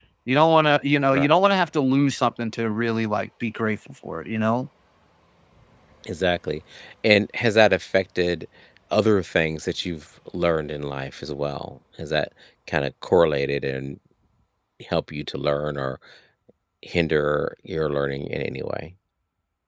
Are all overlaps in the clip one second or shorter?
Yes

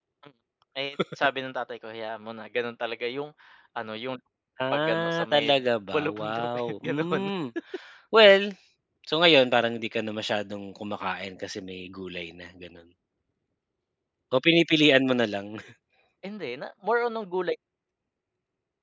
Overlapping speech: Yes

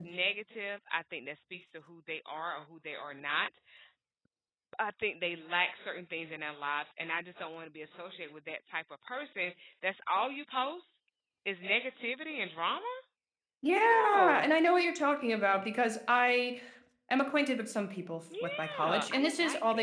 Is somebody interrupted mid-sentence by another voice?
Yes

